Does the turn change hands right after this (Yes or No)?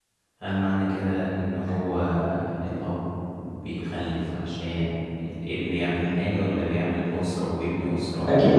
Yes